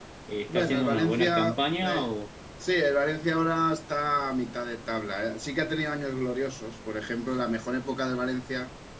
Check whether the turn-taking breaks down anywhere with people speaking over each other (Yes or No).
Yes